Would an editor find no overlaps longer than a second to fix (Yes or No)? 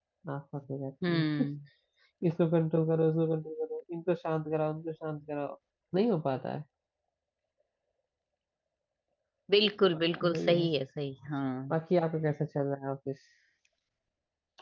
Yes